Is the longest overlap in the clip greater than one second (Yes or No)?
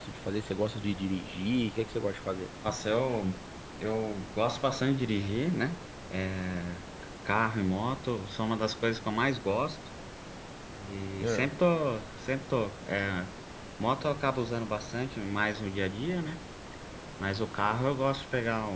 No